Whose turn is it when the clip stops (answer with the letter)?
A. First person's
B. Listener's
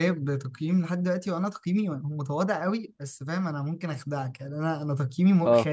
A